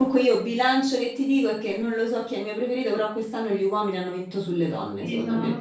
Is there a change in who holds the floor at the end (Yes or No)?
Yes